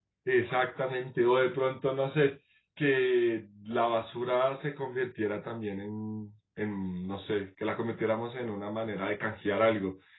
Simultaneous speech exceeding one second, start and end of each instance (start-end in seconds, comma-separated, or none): none